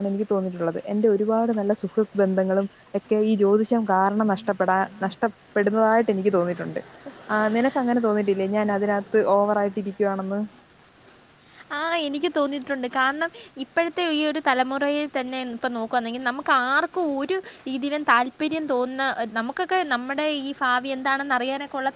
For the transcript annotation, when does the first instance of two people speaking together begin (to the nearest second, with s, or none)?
none